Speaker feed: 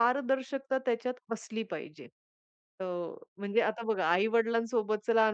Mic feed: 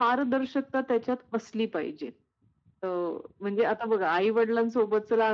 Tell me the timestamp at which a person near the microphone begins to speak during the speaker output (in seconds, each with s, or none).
none